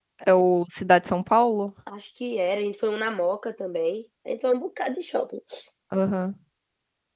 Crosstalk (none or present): none